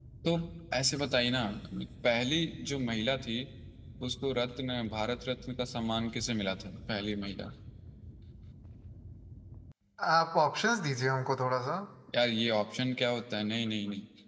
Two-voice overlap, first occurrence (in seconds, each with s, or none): none